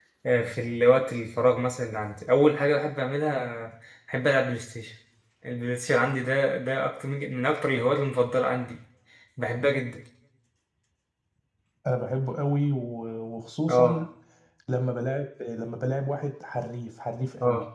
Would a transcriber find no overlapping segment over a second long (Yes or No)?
Yes